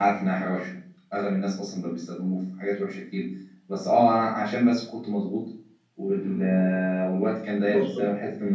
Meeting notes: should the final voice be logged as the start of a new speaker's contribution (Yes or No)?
No